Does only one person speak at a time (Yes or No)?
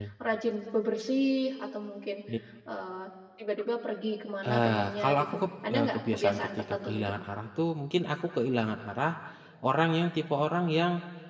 No